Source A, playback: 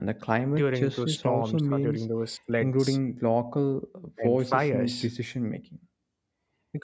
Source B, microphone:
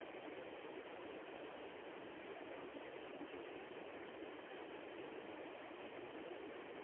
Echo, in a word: none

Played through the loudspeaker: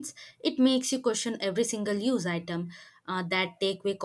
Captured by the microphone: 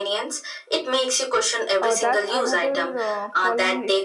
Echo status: present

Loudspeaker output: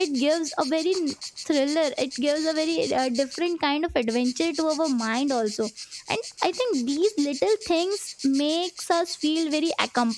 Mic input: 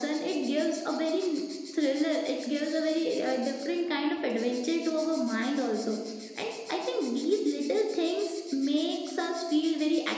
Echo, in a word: present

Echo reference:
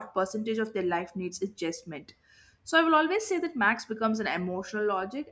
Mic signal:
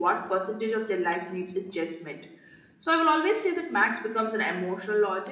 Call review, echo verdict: present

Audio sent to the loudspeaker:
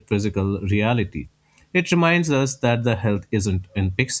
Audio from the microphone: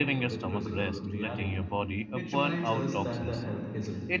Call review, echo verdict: present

